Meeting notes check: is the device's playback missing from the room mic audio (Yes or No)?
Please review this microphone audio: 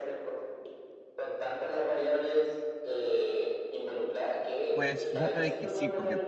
No